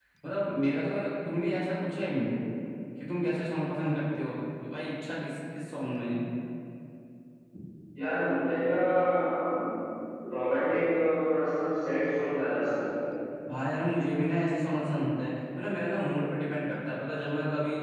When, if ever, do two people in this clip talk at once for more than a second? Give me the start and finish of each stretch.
none

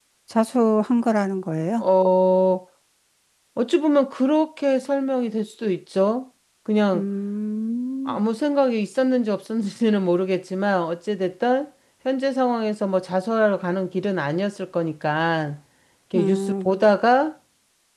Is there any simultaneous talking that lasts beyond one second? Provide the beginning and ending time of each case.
none

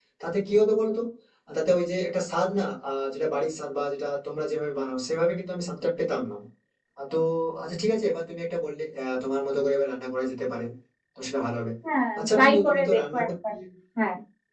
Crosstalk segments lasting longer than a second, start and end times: 12.2-13.5

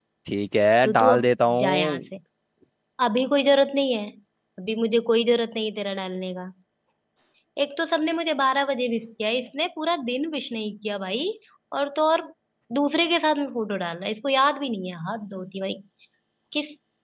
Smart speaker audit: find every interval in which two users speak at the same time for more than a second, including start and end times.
0.8-2.0

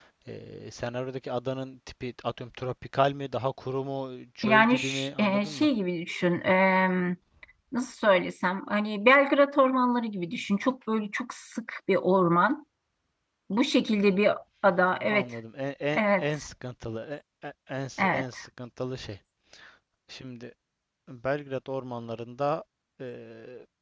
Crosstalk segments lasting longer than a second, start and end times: 4.4-5.7

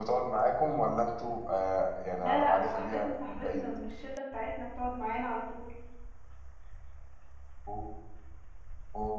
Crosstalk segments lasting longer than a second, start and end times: 2.2-3.7

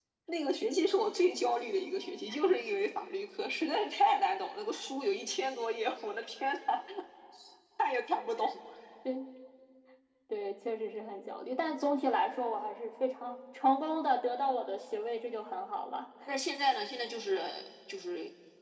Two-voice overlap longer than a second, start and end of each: none

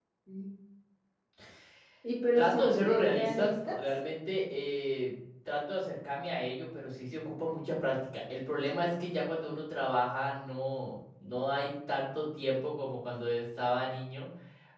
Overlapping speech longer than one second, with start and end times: 2.4-3.8

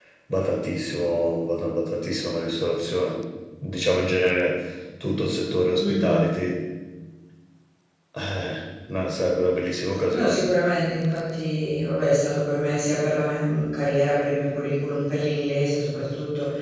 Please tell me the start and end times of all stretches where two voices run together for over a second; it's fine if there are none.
none

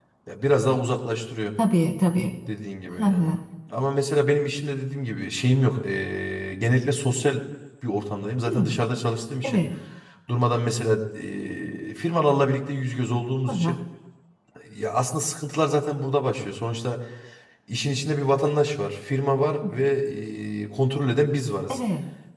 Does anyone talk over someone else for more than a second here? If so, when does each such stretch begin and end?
none

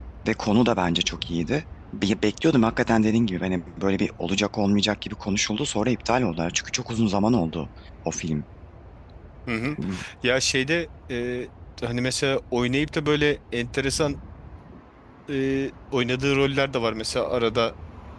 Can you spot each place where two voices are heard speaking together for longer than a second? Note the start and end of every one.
none

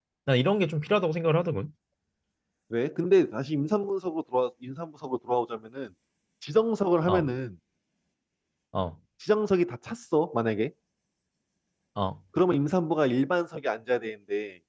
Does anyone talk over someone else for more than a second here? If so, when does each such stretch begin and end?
none

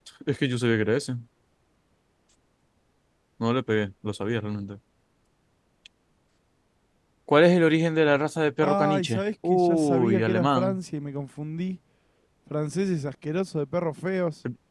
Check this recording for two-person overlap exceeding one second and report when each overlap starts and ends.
8.6-10.8

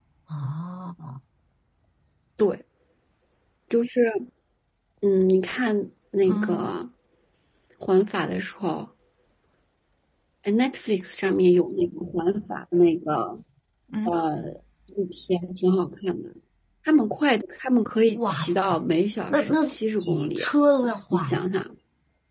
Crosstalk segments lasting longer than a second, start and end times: none

